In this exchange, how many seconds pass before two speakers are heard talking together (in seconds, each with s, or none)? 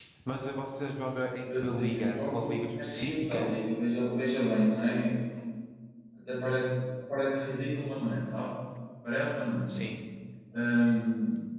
1.4 s